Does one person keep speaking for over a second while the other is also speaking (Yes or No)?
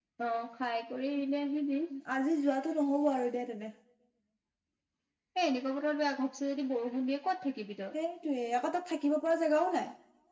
No